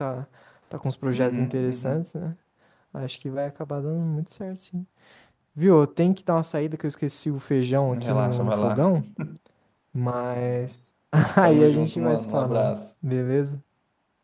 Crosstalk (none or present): present